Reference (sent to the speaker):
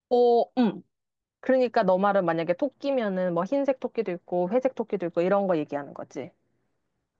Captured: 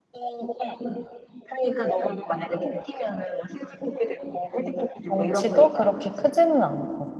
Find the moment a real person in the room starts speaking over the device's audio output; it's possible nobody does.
5.0 s

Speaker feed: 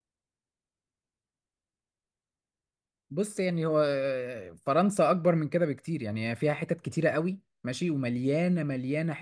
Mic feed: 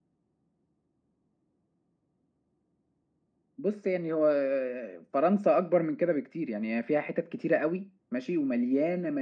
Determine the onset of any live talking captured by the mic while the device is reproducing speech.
none

